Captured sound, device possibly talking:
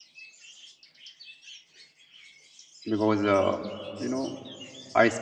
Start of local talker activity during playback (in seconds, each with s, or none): 2.9 s